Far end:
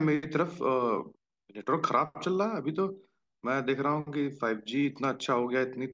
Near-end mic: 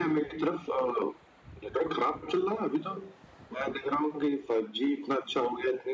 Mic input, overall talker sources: echo only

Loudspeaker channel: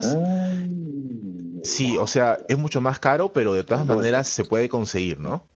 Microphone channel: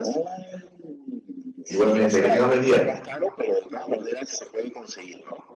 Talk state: both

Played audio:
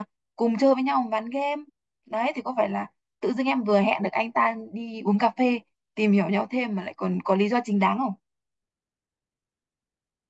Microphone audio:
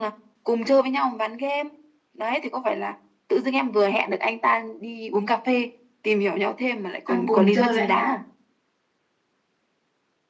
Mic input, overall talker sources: both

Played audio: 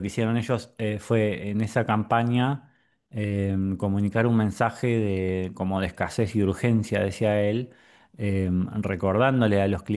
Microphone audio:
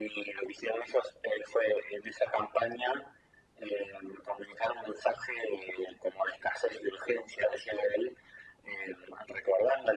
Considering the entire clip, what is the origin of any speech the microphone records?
echo only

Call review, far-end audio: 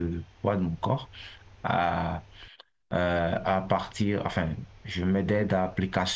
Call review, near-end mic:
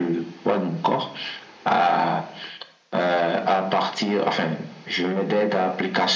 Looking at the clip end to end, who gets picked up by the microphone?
echo only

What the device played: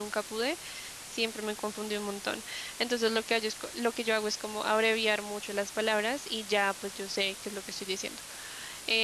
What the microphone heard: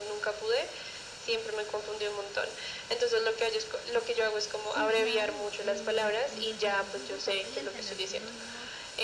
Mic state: both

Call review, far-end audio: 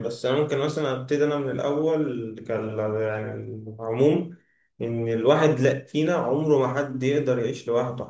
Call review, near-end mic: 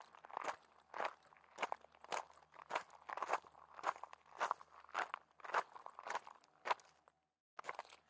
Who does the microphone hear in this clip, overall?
neither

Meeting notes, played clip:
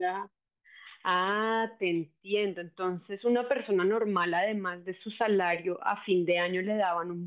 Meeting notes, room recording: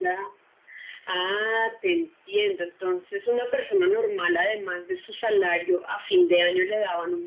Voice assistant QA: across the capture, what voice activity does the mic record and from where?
echo only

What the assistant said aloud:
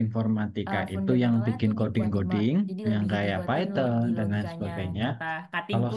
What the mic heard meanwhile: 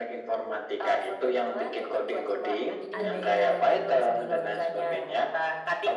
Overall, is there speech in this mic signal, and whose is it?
both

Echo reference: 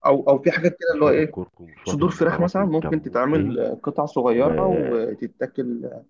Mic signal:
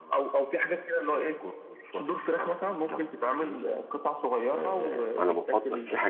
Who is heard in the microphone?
both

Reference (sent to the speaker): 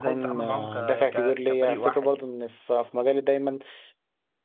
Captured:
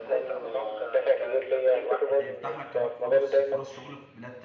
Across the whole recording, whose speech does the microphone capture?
both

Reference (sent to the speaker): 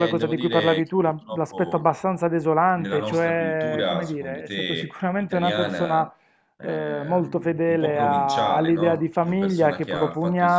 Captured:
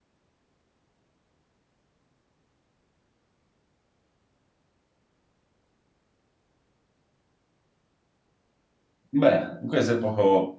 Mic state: user only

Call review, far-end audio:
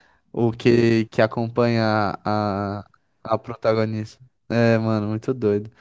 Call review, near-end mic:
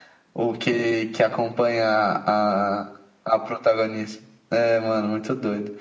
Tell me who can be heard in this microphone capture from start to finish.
echo only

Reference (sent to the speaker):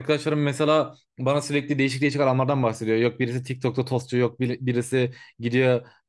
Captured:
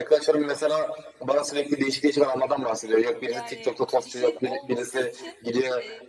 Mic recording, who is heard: both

